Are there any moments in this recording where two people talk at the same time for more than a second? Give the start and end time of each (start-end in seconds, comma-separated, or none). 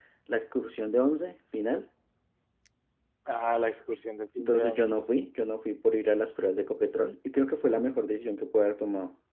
none